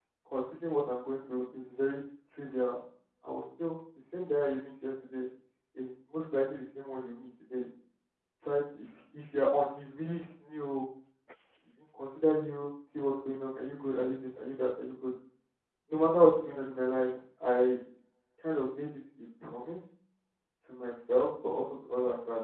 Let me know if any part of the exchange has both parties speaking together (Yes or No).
No